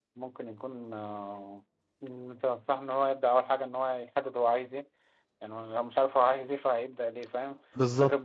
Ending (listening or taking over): listening